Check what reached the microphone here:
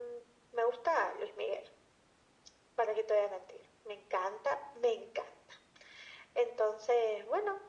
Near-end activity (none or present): none